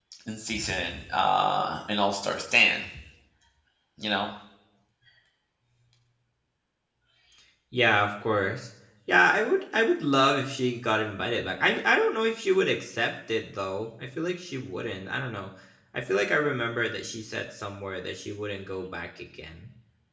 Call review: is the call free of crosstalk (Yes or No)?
Yes